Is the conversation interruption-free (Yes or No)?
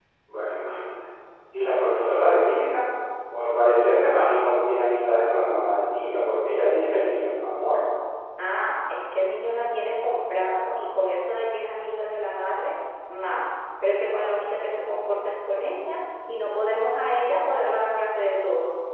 Yes